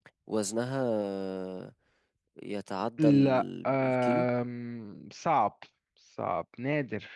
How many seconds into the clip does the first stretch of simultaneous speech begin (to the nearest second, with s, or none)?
3 s